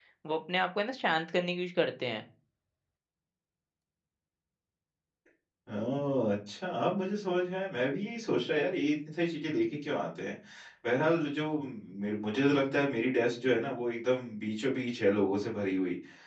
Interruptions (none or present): none